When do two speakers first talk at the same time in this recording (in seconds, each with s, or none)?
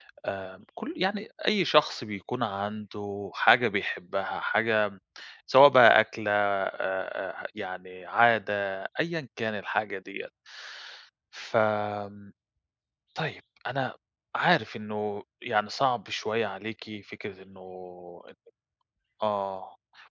none